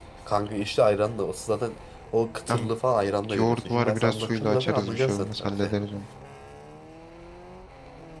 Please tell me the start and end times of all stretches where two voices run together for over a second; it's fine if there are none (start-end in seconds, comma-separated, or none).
3.4-5.7